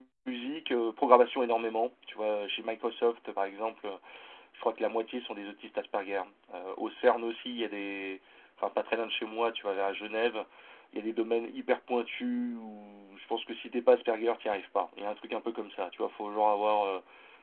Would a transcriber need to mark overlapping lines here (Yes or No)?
No